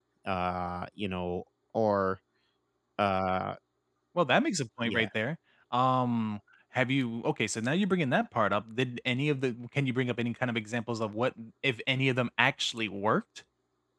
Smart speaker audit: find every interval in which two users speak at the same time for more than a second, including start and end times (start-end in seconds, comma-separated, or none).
none